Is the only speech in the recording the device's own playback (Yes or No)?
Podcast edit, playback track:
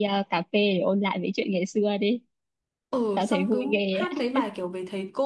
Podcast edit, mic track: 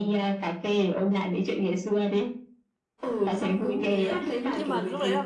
No